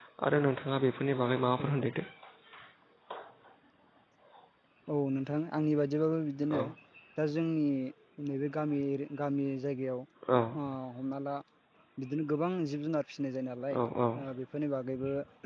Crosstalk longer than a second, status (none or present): none